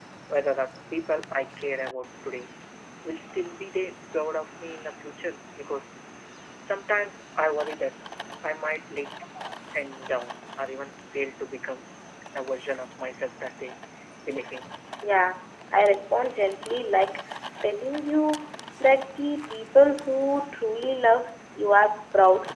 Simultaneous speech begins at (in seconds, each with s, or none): none